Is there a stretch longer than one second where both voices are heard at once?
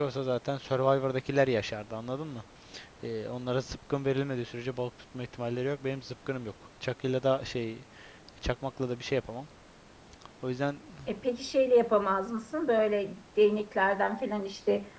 No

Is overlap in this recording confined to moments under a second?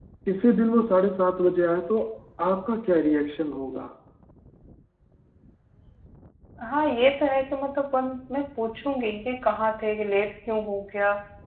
Yes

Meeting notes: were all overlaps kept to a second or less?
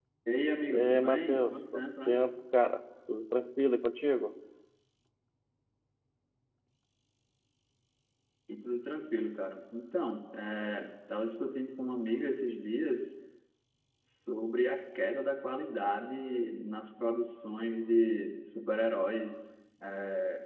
No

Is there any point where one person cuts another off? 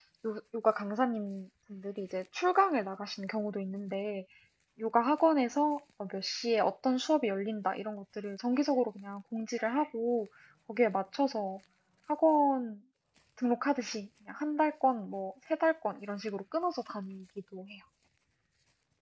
No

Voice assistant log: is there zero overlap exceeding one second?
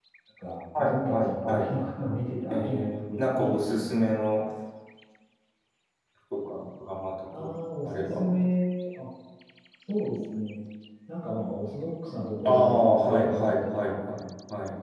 No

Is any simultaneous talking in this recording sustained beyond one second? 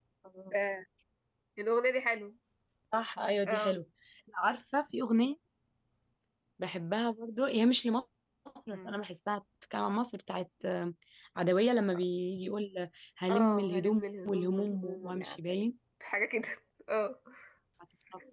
Yes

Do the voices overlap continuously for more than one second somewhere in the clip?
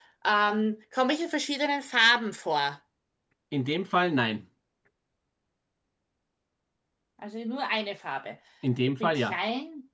No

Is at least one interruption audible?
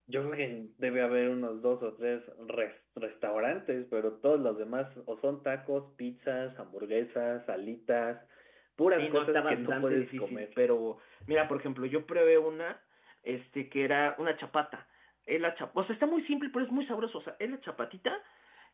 Yes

